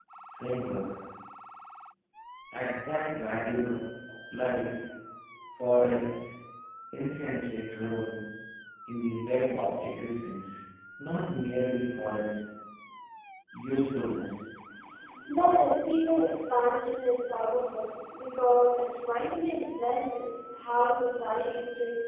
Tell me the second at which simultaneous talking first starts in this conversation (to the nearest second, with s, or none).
none